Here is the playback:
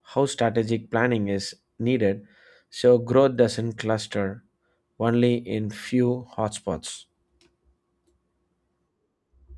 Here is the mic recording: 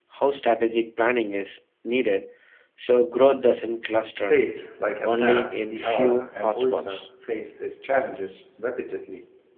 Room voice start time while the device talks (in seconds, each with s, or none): 4.1 s